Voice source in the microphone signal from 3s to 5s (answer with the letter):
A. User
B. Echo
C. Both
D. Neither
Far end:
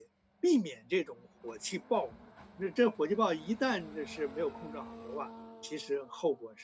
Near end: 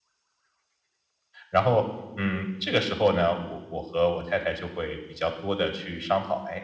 A